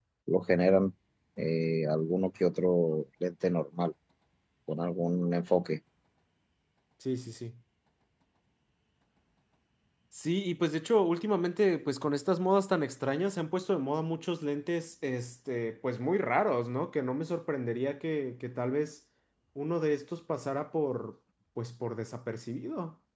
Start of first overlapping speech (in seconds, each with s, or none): none